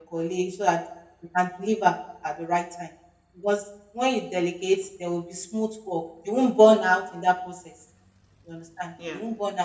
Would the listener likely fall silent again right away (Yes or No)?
Yes